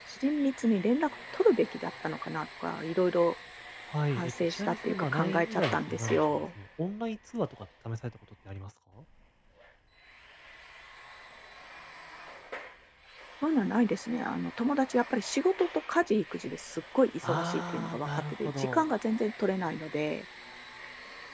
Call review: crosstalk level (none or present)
present